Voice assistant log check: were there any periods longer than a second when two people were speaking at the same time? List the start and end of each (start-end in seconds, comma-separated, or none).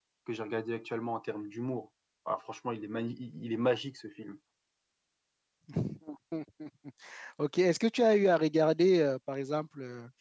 none